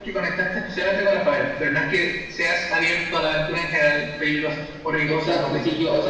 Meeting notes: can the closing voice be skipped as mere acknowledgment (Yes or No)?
No